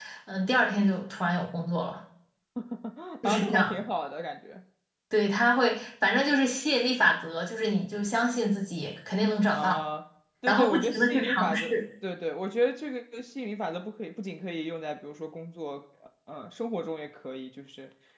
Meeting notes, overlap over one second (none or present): present